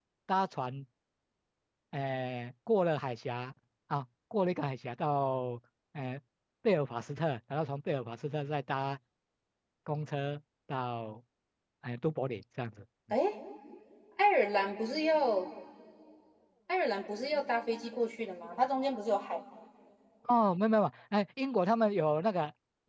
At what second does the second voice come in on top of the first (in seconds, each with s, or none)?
none